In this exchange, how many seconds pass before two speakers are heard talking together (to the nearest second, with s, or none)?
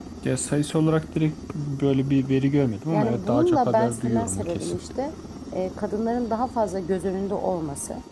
3 s